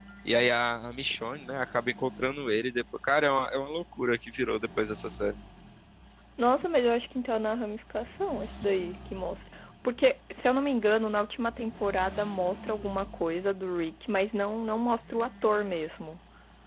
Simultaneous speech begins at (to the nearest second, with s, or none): none